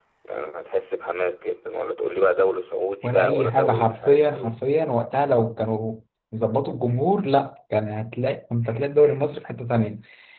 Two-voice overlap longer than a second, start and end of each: 3.0-4.5

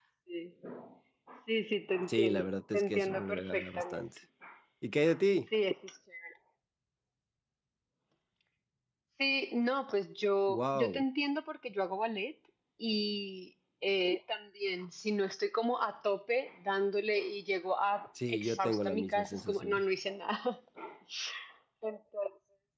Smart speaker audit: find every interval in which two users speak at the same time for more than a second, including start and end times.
2.1-4.1, 18.3-19.8

